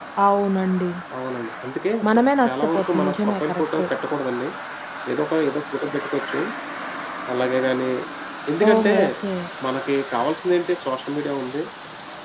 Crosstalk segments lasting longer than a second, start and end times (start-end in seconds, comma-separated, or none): 2.0-3.9